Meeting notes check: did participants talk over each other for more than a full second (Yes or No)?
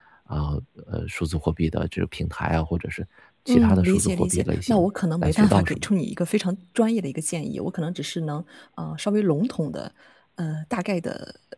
Yes